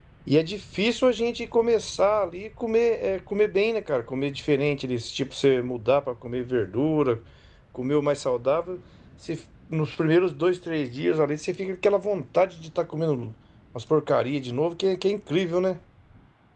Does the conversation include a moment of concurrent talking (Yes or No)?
No